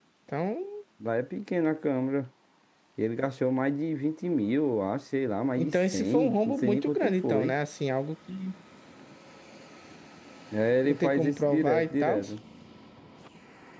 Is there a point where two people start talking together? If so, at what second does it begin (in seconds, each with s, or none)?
5.6 s